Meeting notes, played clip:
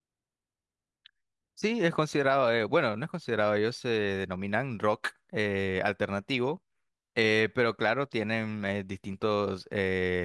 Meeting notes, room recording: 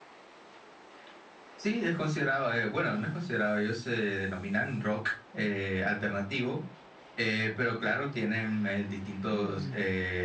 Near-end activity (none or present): present